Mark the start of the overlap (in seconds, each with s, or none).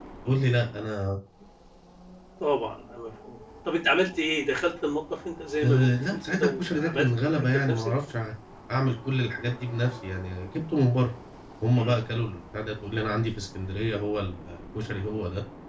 5.6 s